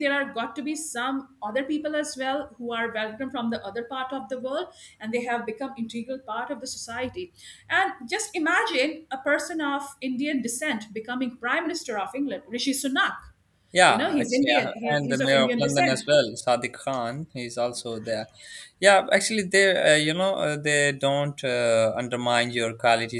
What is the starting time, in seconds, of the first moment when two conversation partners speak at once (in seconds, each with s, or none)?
13.9 s